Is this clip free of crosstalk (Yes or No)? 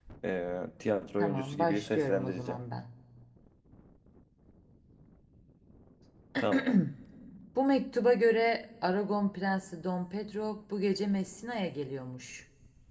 No